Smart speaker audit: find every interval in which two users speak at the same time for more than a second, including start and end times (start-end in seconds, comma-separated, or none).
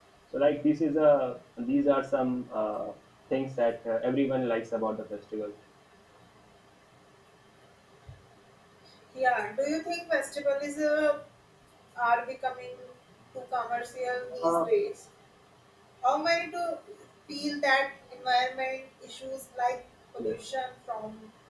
none